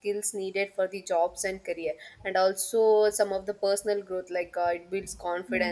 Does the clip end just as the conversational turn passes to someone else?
No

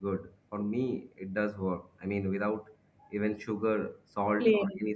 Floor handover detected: No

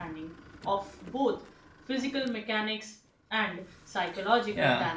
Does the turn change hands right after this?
Yes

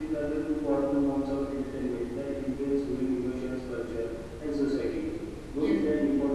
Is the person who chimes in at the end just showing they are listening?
Yes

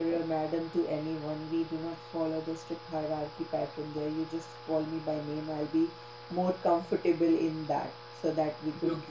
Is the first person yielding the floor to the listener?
No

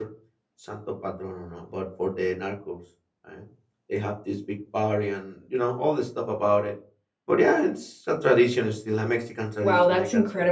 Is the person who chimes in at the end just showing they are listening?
No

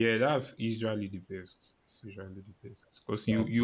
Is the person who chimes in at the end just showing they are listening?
Yes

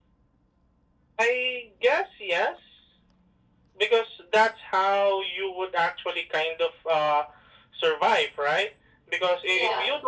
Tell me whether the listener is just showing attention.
Yes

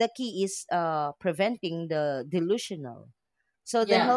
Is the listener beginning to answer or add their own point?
No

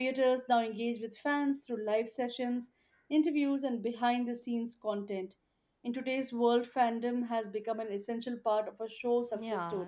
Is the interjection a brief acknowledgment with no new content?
No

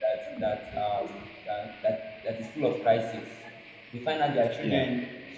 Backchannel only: Yes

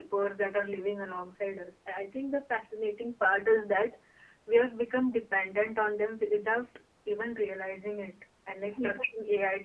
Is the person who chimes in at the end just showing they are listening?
Yes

